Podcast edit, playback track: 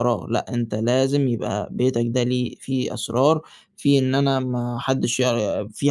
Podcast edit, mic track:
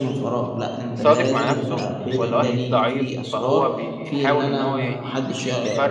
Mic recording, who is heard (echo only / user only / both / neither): both